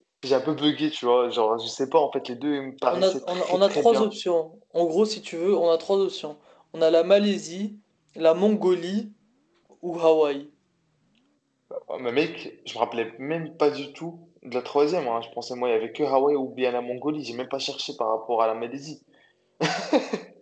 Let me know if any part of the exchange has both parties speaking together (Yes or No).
Yes